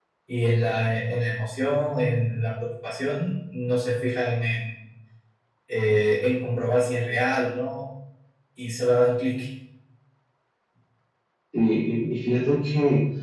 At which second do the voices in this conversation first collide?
none

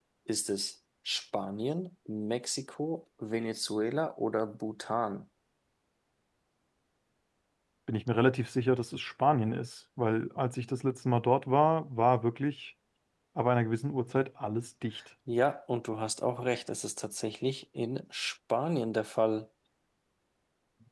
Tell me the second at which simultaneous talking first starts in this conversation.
none

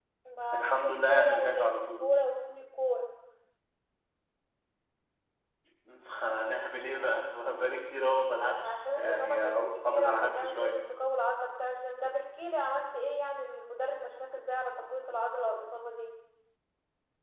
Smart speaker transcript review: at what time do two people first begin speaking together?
0.5 s

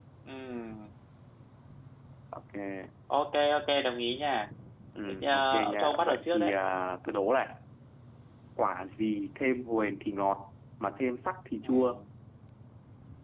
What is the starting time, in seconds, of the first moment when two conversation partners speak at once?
5.1 s

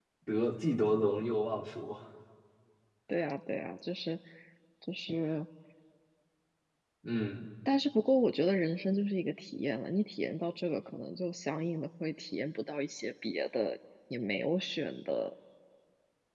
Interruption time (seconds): none

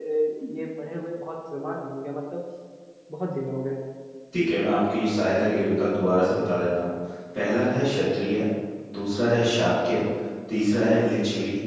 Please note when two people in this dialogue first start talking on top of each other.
none

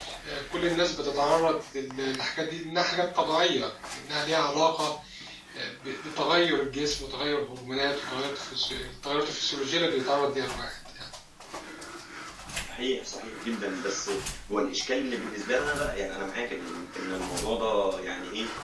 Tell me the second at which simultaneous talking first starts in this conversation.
none

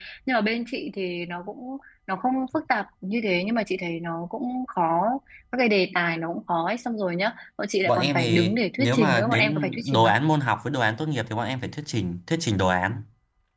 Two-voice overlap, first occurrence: 7.8 s

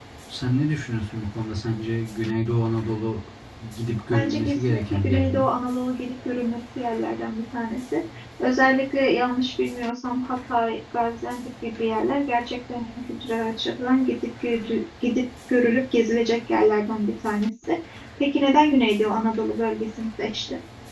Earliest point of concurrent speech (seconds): 4.1 s

